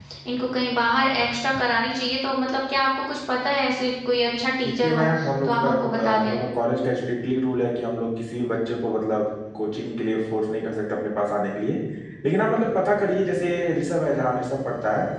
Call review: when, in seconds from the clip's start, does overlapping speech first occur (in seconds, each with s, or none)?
4.6 s